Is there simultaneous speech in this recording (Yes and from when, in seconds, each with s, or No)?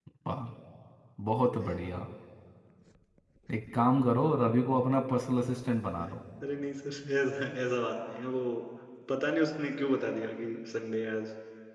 No